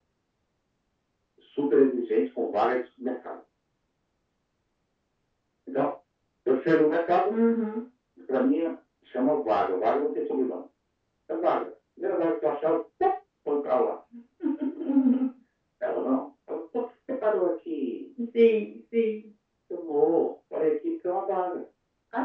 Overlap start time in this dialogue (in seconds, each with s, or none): none